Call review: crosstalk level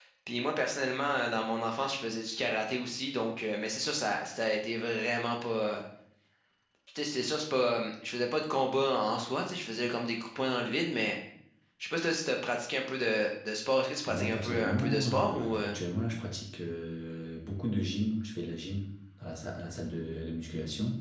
present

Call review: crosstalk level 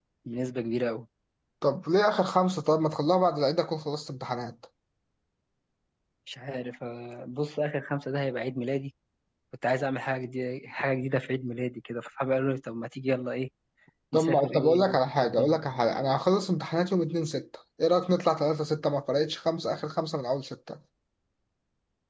present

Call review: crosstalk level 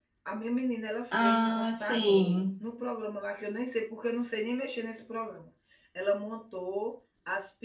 present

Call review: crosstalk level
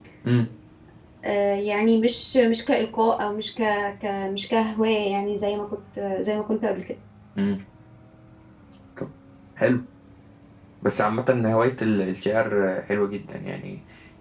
none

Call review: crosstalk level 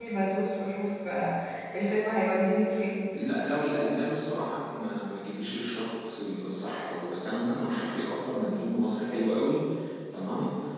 none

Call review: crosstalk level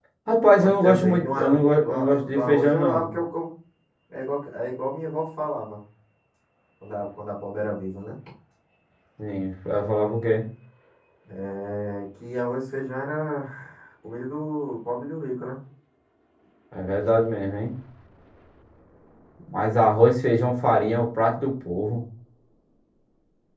present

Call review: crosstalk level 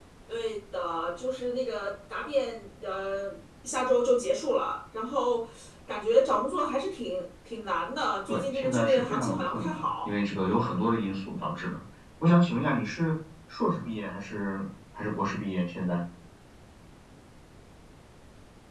present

